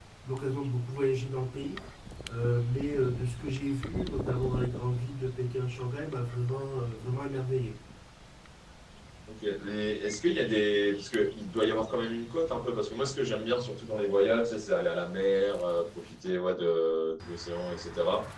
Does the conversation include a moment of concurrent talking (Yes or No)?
No